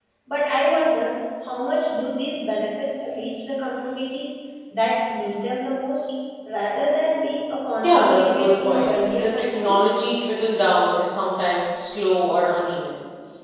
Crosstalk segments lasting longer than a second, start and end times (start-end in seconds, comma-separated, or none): 7.8-10.0